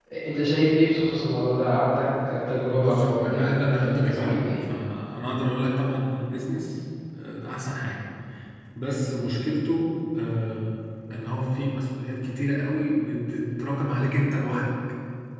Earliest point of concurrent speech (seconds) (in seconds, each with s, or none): 2.8 s